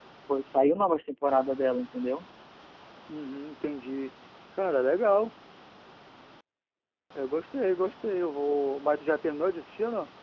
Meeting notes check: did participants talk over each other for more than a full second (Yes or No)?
No